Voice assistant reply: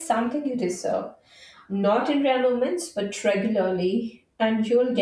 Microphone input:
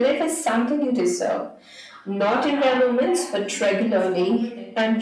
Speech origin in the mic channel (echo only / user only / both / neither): both